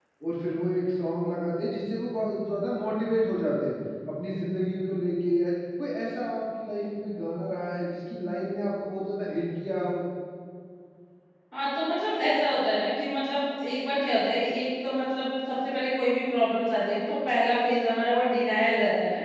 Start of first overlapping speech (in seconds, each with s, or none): none